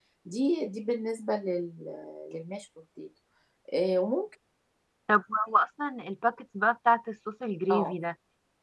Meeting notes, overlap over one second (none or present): none